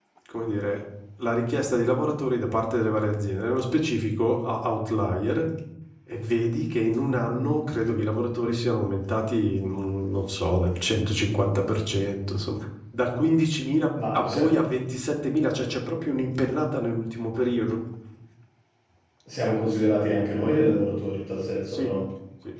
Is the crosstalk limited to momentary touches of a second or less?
Yes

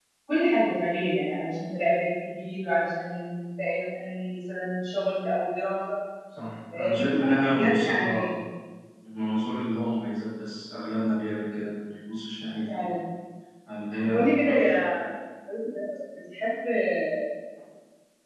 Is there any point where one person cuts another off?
Yes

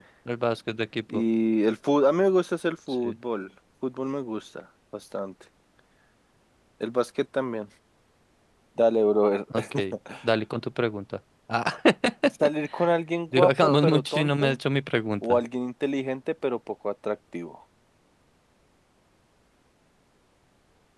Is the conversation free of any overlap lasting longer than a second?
No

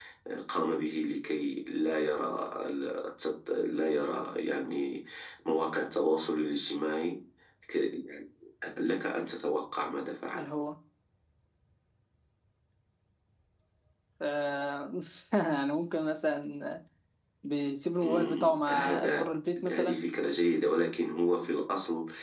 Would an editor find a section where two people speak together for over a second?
Yes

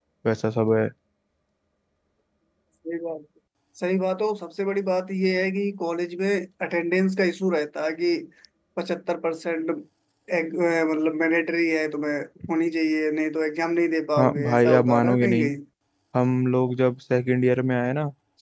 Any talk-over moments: Yes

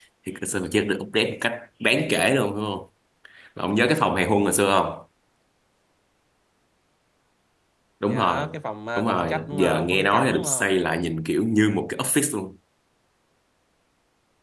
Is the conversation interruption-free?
No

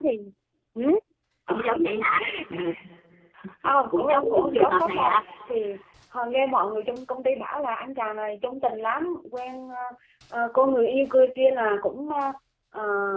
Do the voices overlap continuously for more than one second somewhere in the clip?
Yes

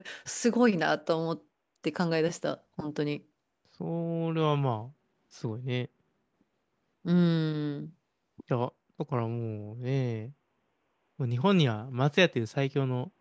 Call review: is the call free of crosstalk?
Yes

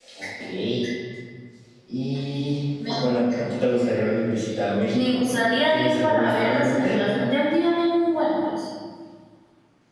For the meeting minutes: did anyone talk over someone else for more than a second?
Yes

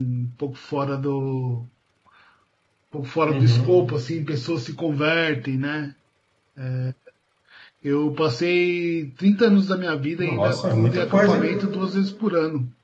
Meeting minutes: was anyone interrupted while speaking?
Yes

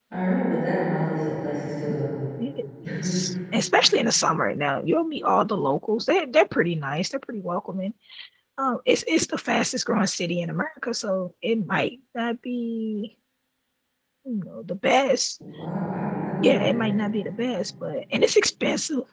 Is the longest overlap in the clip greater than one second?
No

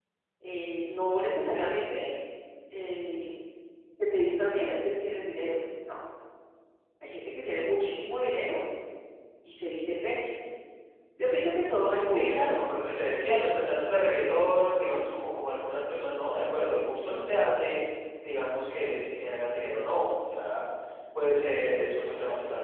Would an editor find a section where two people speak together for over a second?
No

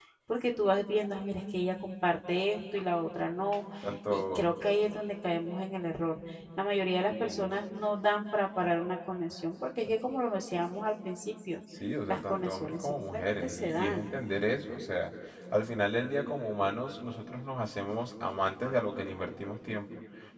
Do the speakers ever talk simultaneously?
Yes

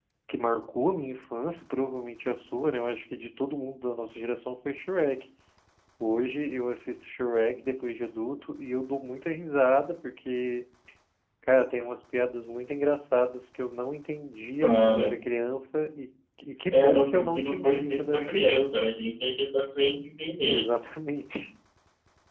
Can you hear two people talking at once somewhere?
Yes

